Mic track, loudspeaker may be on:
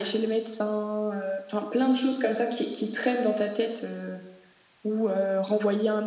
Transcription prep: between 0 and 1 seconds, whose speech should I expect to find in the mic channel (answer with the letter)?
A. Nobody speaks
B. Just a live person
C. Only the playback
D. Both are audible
C